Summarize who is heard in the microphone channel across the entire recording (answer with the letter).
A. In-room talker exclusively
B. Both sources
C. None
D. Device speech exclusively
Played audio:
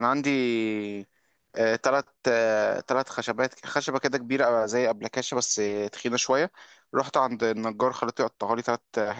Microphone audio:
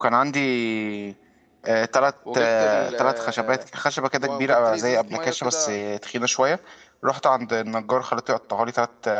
B